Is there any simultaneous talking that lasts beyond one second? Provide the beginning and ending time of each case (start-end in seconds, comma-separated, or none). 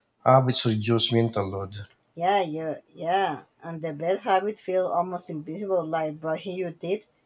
none